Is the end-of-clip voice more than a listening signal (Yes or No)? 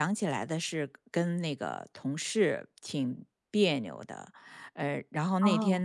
No